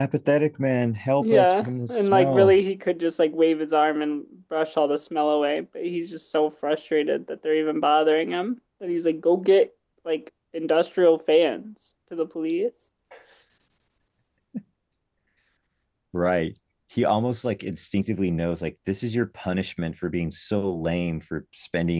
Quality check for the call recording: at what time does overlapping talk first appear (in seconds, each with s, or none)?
1.2 s